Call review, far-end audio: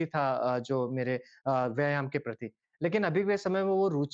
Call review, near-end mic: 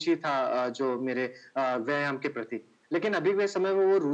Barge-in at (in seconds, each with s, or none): none